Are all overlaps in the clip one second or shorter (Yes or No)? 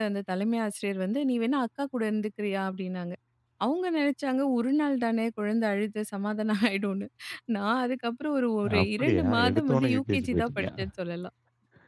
No